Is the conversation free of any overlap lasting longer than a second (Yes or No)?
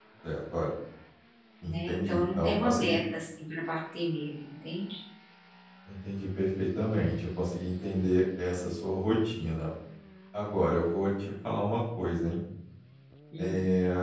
No